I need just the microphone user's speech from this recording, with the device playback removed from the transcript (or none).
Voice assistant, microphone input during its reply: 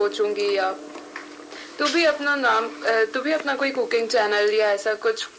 none